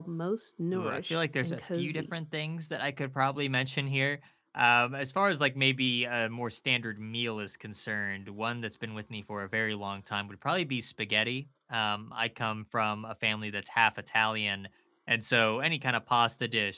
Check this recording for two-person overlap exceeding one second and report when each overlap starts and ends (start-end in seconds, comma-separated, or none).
0.7-2.1